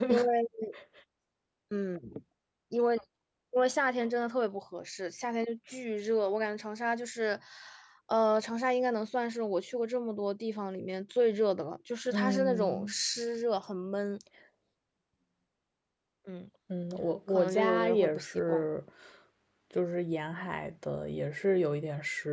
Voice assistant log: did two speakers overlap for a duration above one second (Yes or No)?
Yes